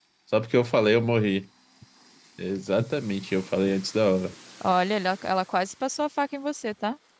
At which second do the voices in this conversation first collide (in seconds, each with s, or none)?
none